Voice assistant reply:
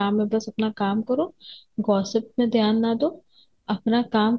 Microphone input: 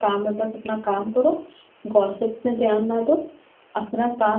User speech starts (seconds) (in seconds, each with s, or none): none